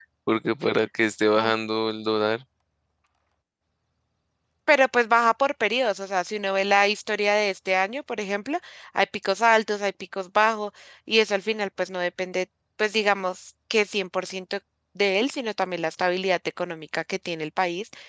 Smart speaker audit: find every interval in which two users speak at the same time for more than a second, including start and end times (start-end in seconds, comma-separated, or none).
none